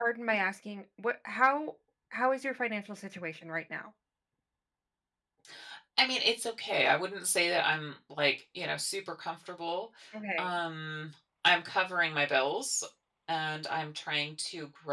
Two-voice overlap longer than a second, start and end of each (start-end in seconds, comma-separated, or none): none